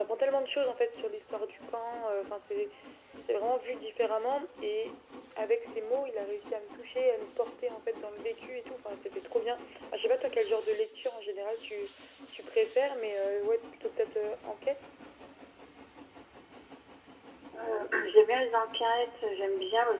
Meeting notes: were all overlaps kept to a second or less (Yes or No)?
Yes